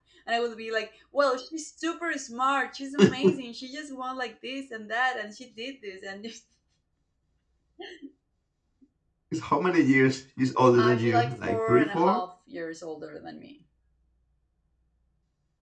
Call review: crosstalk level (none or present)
present